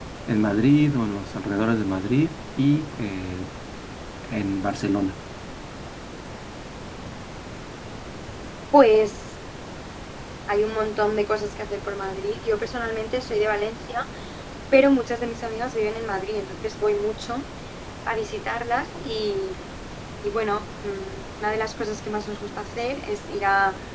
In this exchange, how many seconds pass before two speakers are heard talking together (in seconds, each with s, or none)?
none